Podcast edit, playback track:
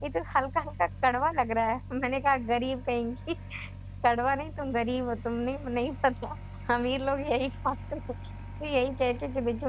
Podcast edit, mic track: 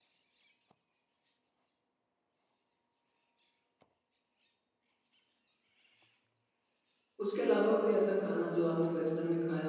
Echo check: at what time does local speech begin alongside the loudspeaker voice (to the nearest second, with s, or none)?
7 s